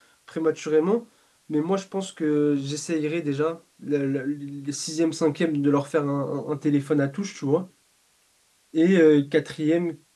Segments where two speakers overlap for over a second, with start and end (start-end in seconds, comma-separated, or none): none